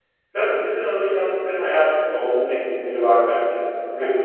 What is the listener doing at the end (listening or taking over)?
taking over